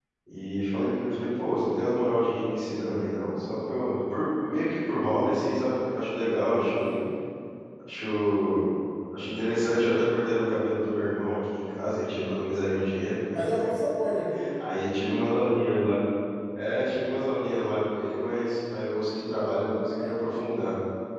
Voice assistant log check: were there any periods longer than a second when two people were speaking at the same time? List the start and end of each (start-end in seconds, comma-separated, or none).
none